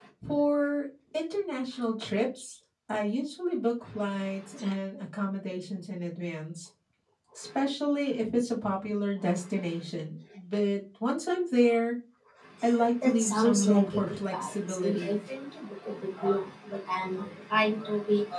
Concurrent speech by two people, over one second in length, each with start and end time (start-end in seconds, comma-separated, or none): 13.0-15.2